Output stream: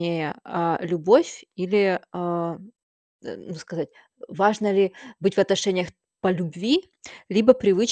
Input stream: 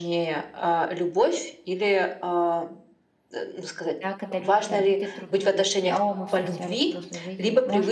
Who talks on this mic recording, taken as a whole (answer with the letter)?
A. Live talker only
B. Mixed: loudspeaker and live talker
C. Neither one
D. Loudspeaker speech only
B